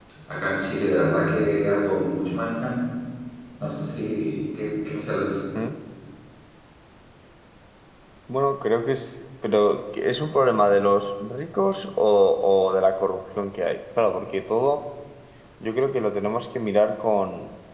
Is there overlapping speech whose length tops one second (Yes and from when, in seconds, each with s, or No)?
No